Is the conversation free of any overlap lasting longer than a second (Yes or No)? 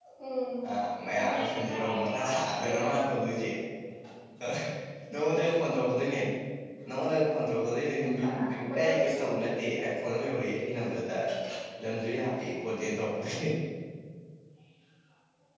No